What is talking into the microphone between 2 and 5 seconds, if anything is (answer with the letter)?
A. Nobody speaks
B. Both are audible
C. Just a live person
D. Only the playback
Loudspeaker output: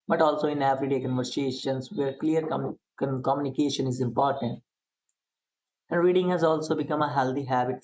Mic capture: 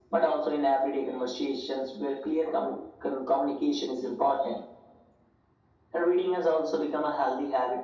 D